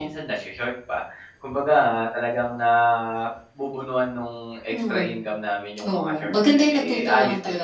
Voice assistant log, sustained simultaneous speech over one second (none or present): present